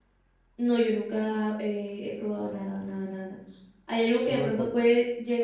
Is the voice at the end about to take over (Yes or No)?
No